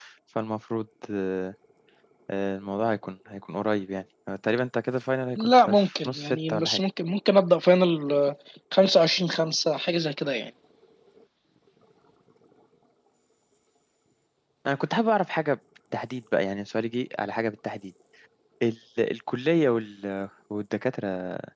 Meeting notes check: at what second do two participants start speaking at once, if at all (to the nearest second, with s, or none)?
5 s